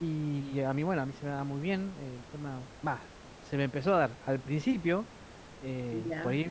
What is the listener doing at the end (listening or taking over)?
listening